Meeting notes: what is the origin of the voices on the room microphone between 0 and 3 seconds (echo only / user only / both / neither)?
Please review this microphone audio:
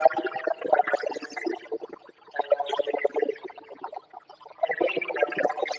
echo only